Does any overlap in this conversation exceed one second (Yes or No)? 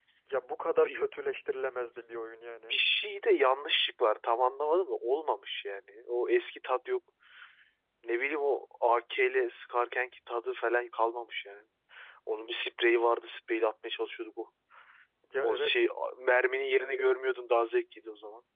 No